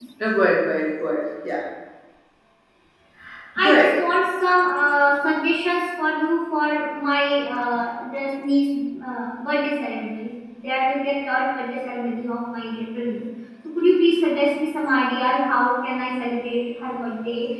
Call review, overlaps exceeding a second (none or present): none